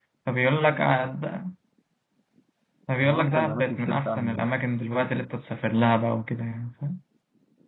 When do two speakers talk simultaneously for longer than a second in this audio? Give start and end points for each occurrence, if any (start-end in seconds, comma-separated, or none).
3.0-4.4